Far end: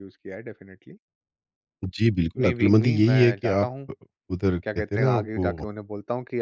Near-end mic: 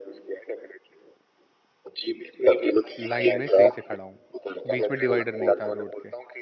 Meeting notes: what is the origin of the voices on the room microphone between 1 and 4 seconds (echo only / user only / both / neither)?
both